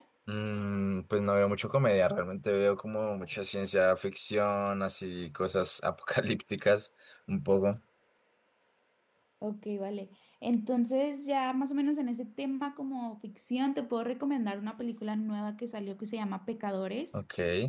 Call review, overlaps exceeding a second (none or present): none